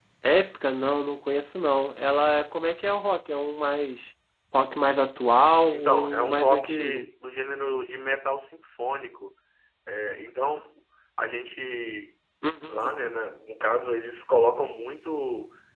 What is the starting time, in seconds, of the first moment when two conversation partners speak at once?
5.7 s

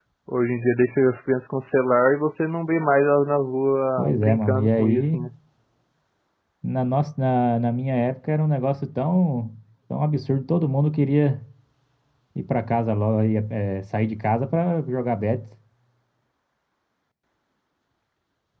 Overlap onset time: 4.0 s

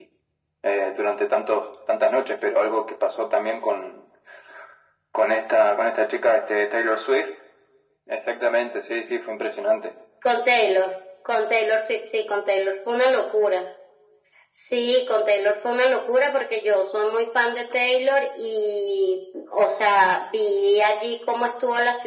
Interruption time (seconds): none

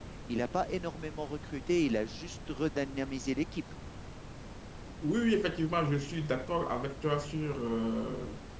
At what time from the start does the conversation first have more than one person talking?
none

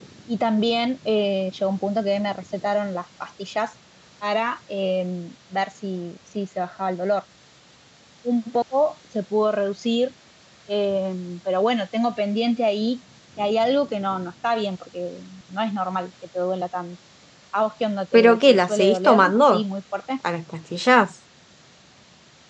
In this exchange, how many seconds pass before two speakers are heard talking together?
18.1 s

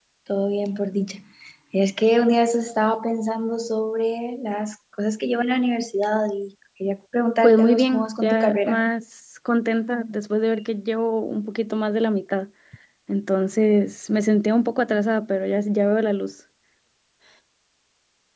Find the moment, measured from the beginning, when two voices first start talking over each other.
7.4 s

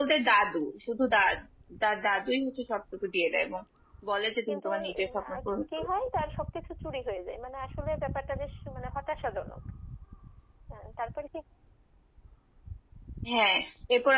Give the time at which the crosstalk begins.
4.5 s

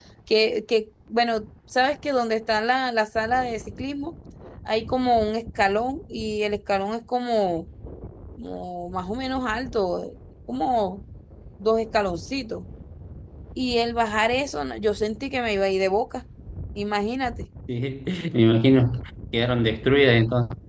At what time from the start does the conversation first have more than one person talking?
none

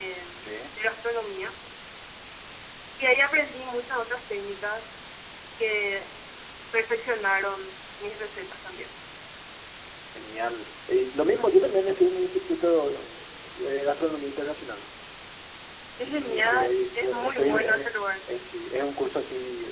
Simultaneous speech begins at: 16.0 s

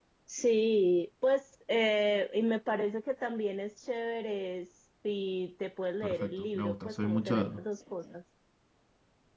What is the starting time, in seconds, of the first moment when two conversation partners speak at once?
6.0 s

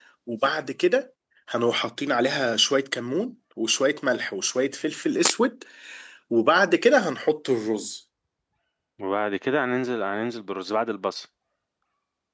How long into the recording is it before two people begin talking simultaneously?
none

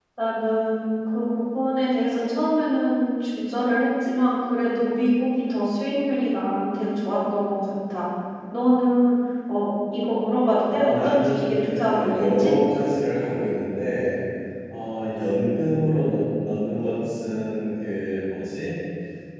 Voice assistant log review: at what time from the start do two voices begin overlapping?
10.7 s

